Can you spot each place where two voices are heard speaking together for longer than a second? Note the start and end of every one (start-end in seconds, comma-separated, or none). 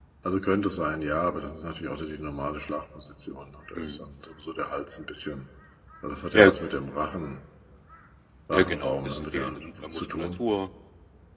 8.5-10.3